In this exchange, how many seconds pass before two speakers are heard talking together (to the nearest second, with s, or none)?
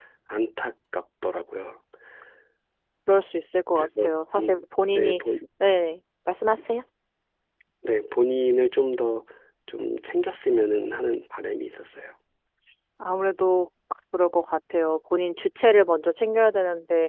4 s